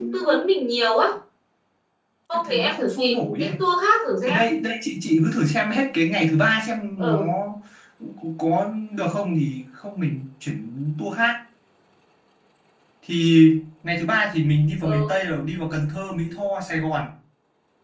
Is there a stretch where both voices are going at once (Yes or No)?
Yes